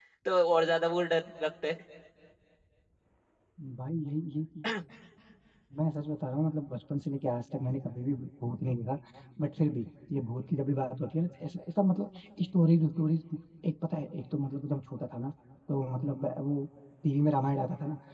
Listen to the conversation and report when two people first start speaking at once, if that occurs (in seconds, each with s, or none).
none